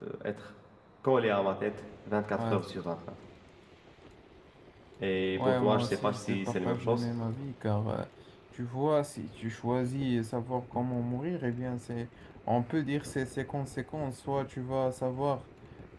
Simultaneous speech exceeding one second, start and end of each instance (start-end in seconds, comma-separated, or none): 5.3-7.0